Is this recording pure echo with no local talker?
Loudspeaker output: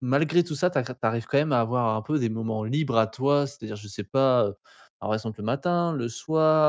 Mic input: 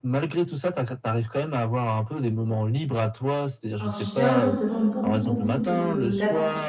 No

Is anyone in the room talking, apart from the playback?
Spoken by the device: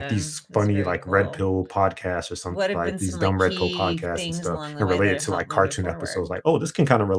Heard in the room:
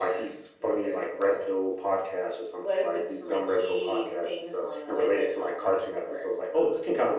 No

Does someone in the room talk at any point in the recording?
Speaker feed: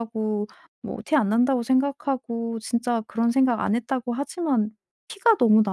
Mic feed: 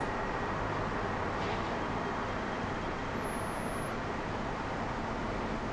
No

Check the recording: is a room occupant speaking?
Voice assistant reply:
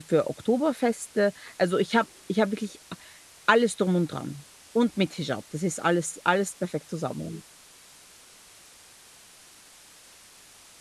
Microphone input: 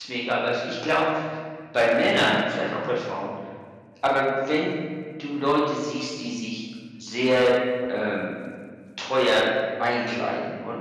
Yes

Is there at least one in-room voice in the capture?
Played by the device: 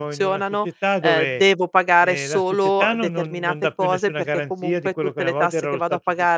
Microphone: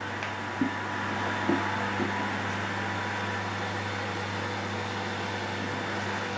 No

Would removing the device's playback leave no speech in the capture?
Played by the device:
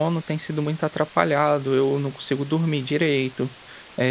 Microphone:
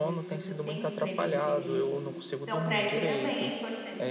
No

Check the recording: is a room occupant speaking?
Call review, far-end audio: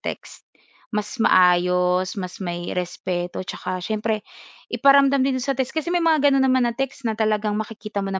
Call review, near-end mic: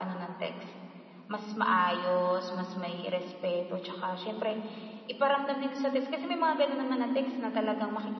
No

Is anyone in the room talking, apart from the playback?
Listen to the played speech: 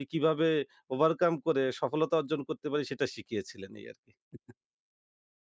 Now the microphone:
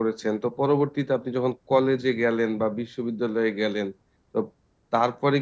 Yes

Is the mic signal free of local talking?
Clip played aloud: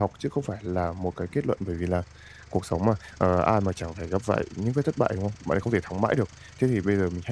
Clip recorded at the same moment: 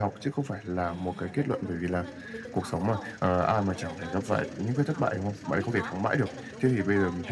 No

